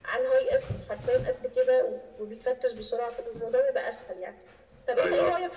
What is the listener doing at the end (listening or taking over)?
listening